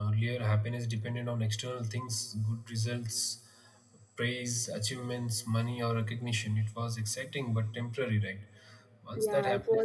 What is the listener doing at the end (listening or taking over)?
taking over